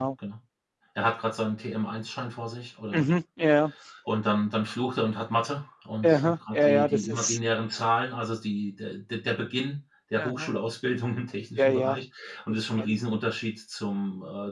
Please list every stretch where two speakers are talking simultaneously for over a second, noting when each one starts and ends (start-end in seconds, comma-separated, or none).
6.0-7.4